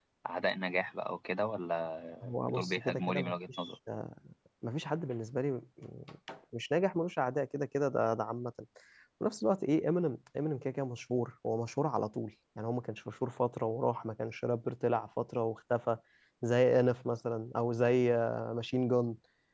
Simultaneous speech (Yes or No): Yes